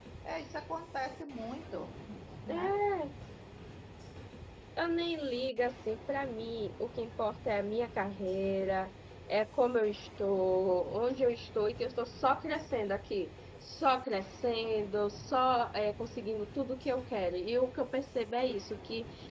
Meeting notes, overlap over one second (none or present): none